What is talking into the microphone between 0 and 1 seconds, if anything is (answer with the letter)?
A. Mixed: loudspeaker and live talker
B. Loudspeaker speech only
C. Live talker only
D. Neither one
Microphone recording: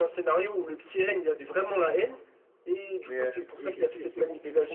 B